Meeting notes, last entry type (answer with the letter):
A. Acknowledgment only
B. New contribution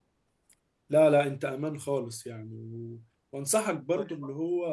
A